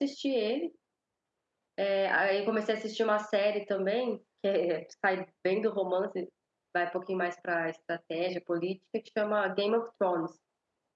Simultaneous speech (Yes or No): No